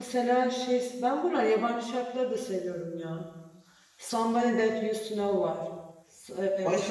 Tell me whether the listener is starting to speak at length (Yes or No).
Yes